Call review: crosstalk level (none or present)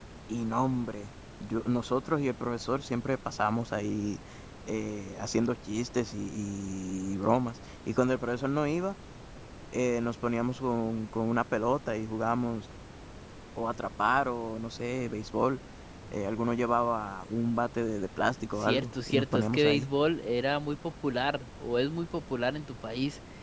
present